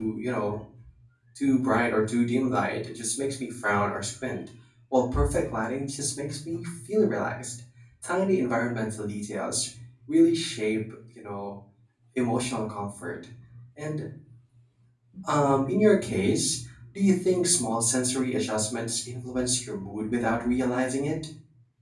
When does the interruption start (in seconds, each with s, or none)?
none